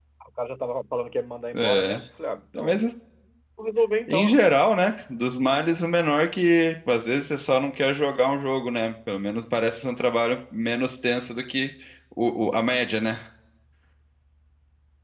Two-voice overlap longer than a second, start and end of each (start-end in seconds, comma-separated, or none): none